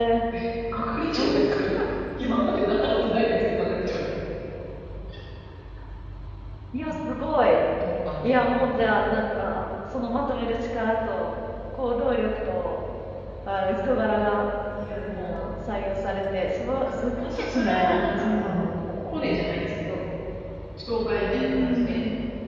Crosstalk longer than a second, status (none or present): present